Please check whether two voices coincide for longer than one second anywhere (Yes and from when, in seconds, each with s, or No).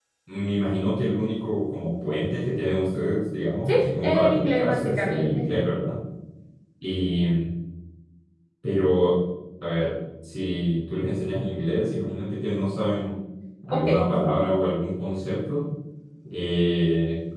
Yes, from 3.7 s